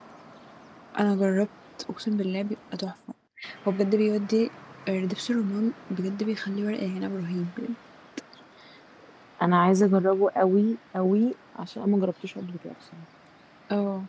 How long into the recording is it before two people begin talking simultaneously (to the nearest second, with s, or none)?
none